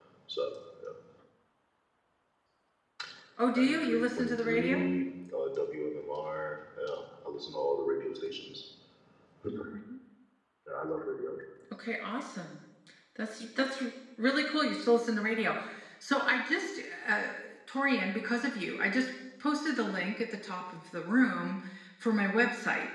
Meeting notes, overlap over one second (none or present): present